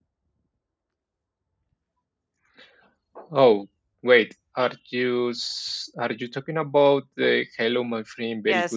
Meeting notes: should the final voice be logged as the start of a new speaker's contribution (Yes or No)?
Yes